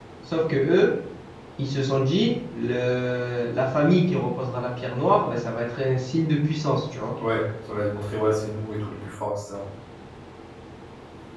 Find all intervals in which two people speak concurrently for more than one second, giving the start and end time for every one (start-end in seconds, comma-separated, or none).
none